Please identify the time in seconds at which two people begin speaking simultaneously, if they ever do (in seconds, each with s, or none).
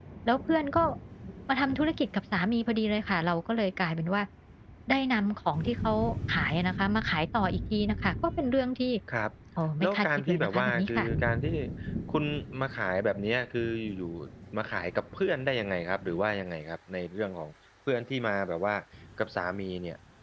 9.8 s